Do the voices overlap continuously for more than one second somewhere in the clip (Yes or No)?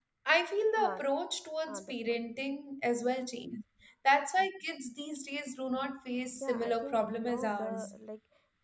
Yes